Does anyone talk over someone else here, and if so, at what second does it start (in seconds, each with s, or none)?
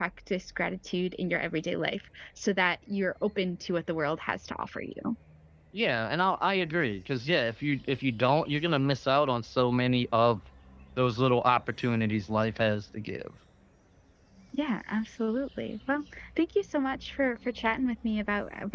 none